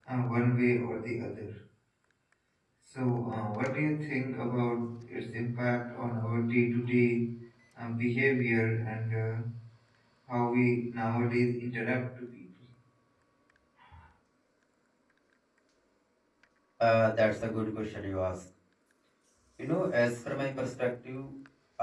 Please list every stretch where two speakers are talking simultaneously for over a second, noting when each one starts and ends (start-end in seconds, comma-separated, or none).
none